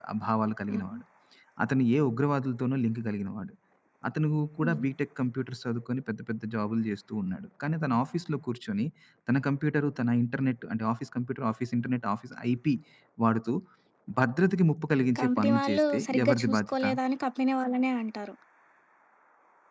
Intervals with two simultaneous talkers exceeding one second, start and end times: 15.2-16.8

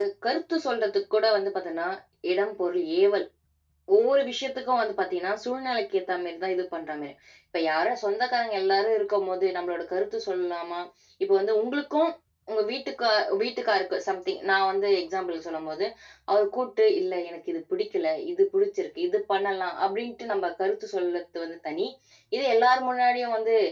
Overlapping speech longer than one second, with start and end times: none

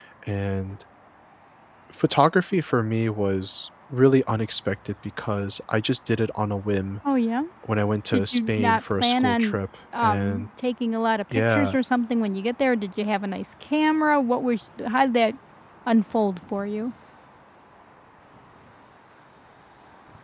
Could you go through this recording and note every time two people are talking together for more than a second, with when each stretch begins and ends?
8.1-9.6

